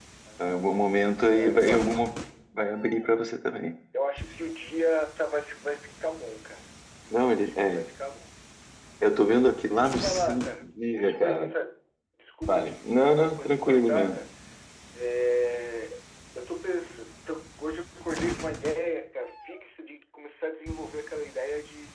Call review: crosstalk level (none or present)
present